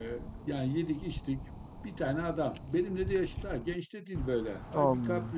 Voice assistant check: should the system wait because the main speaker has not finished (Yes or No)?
Yes